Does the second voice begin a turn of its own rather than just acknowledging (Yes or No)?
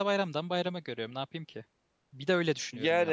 Yes